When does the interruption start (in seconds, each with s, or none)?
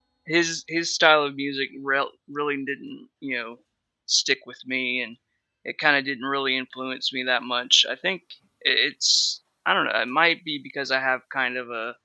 none